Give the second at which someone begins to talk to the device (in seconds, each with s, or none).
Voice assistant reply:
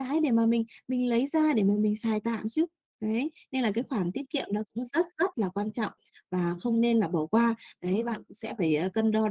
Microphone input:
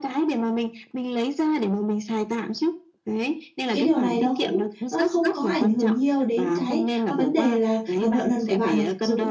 3.6 s